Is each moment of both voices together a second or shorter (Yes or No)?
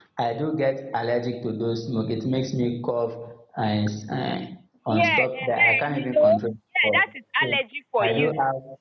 No